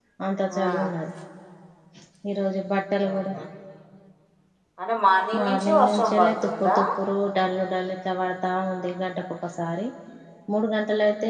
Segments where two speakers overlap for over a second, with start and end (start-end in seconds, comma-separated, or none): 5.4-6.8